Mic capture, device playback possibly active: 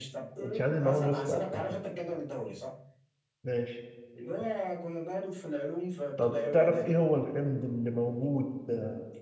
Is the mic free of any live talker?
No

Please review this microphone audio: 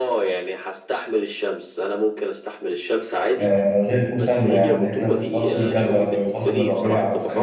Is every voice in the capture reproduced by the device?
No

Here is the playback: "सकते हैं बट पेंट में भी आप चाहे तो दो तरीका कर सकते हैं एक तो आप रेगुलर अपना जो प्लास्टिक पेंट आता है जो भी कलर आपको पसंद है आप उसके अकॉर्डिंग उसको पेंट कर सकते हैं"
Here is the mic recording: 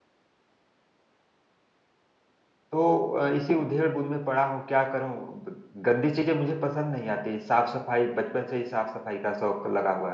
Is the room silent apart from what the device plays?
No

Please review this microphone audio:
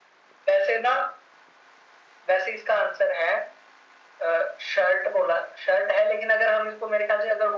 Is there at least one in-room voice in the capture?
No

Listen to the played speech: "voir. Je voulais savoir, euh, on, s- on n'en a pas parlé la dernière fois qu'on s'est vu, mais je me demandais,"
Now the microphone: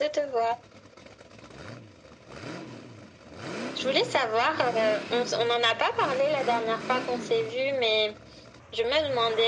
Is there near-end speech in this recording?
No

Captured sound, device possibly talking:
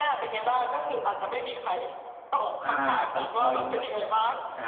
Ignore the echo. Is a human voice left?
Yes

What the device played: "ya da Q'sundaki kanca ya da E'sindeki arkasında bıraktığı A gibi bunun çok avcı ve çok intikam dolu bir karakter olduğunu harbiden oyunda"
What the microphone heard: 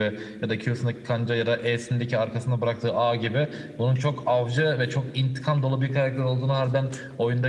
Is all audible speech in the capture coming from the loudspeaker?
Yes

